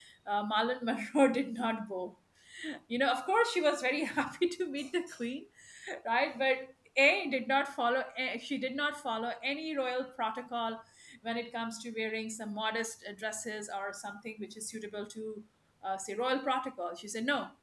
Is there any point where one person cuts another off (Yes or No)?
No